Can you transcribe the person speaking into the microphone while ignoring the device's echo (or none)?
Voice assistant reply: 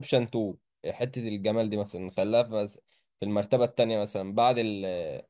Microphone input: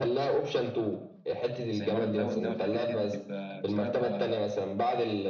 زي مرض داون ده والحاجات ديت بتبقى بسببها